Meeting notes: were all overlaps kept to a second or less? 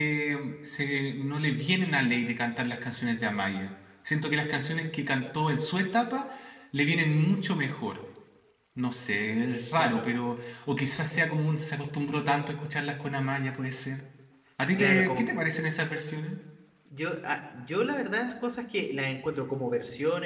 Yes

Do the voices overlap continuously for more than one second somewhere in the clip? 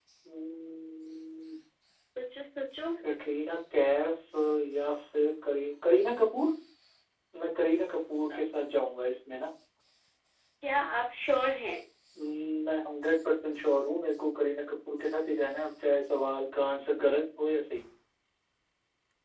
No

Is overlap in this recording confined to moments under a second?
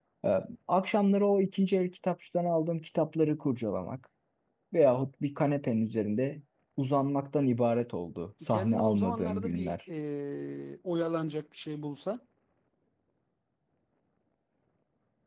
No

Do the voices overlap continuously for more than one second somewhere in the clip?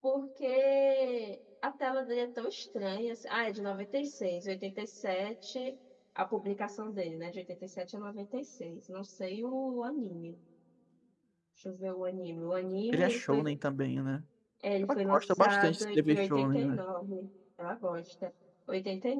Yes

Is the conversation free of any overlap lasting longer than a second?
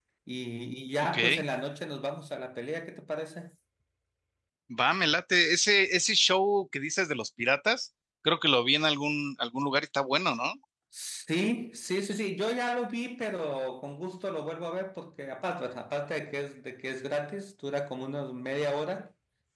Yes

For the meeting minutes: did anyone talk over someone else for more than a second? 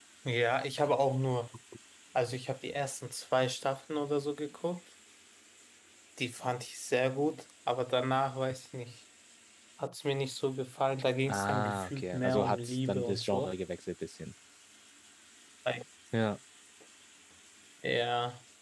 Yes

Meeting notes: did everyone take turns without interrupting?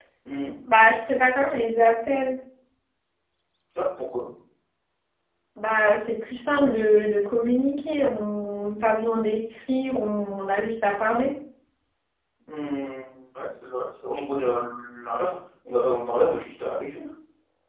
Yes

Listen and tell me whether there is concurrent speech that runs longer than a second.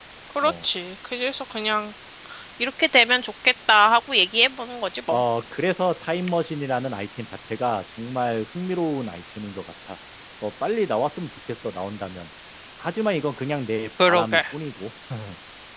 No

